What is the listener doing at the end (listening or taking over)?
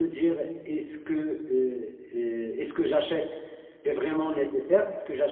listening